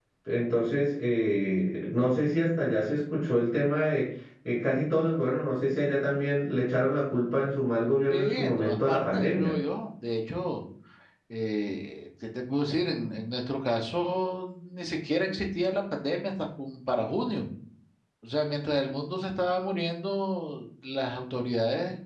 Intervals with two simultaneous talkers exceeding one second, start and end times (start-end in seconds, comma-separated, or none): 8.1-9.5